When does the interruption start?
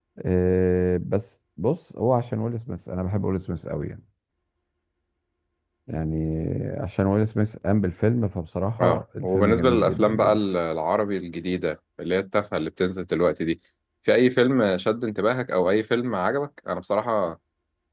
8.8 s

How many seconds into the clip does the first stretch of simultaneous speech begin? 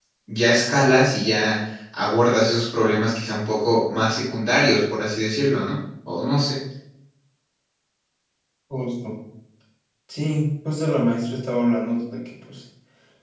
none

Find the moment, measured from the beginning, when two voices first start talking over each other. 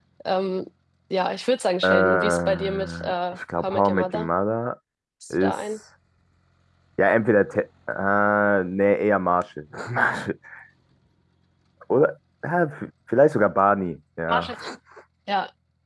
1.8 s

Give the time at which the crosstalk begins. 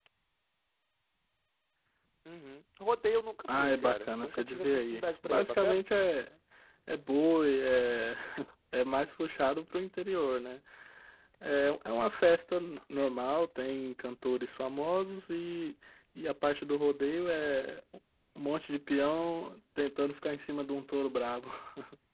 3.5 s

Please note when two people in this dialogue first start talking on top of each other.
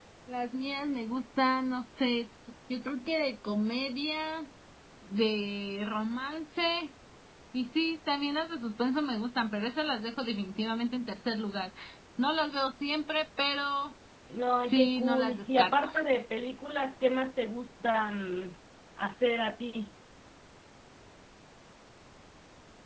14.7 s

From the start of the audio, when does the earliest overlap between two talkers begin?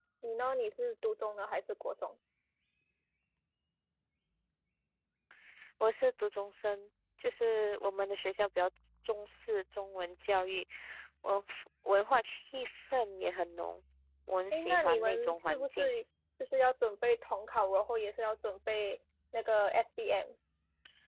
14.5 s

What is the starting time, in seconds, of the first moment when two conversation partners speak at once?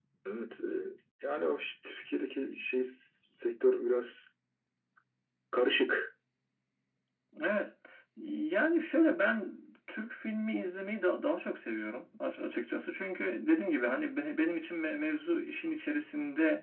none

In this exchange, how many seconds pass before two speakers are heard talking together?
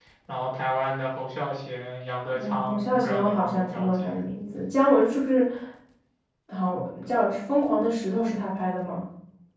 2.3 s

